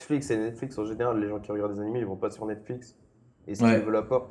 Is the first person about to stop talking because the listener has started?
No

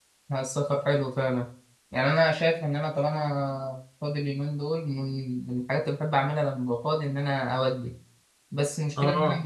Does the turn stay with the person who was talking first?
Yes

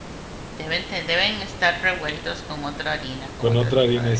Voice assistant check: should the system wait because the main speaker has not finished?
No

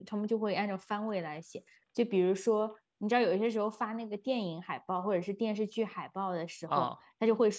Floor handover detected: No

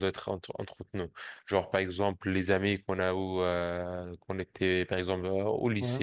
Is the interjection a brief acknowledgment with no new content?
Yes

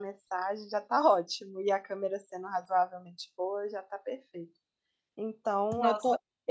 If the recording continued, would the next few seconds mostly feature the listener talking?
No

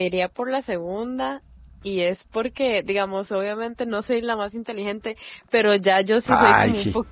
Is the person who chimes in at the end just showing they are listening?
Yes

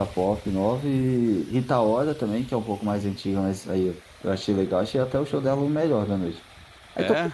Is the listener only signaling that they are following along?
Yes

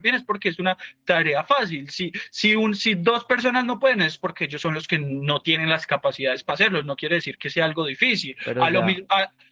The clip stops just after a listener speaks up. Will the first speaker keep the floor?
Yes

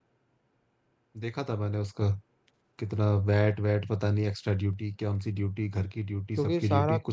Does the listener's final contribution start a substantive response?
Yes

